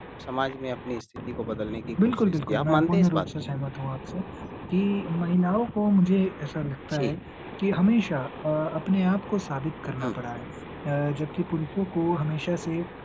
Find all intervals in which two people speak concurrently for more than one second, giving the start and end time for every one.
2.0-3.3

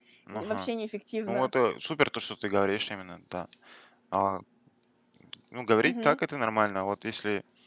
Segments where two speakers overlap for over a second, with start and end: none

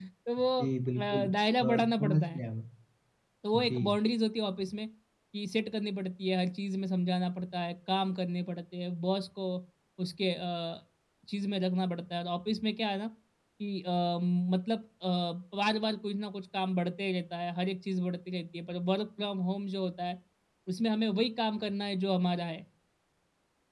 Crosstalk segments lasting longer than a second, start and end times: 1.0-2.4

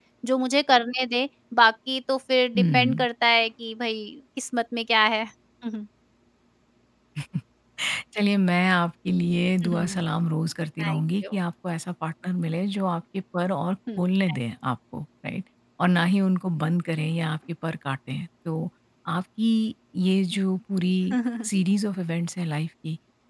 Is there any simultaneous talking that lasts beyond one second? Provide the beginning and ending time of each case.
none

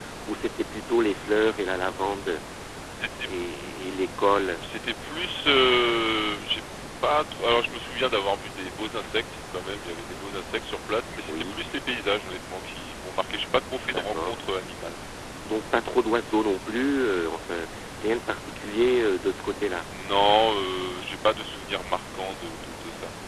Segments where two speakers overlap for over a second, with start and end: none

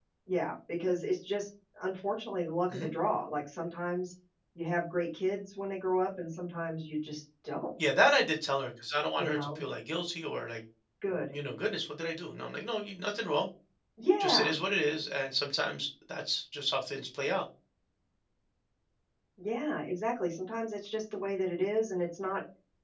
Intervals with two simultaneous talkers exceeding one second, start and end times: none

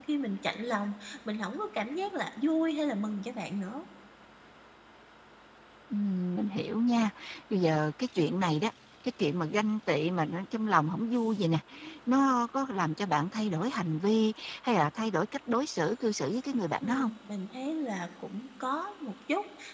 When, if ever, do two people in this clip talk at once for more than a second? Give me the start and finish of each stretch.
none

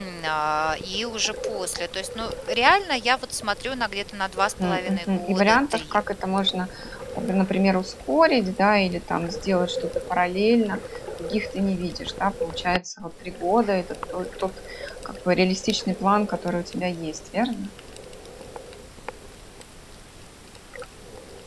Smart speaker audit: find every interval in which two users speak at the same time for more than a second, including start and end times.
4.6-6.0

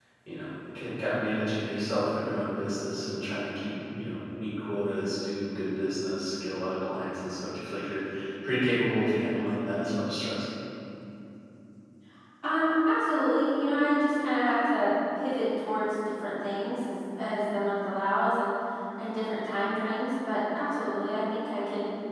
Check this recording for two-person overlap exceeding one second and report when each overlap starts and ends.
none

